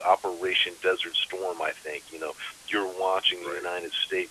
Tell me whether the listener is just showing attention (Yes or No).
Yes